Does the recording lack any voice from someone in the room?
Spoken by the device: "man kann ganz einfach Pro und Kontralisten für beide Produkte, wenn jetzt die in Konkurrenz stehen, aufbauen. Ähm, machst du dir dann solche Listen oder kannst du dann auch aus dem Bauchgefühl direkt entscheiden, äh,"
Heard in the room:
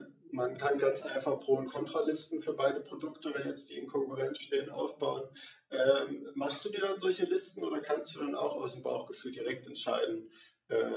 Yes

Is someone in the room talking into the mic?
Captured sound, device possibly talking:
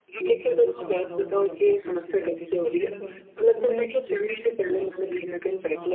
Yes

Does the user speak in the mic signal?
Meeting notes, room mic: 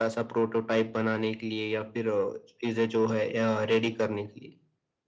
No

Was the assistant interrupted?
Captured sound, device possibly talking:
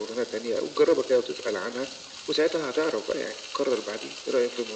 No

